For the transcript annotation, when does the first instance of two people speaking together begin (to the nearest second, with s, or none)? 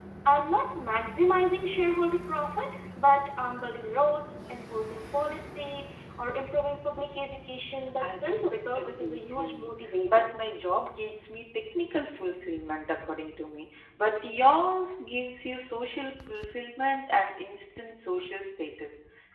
8 s